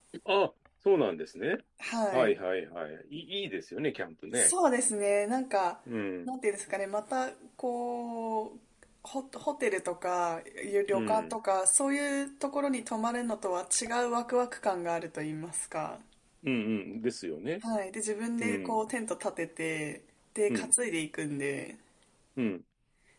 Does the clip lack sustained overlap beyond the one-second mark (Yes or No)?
Yes